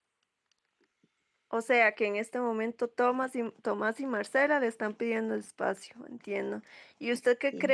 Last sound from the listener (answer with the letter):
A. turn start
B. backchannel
B